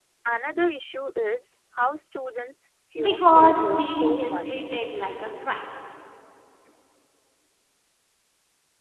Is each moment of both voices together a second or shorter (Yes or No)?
No